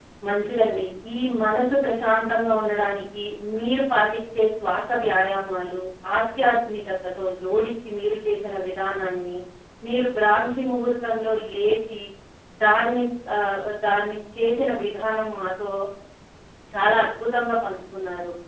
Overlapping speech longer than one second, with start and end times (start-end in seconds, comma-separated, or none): none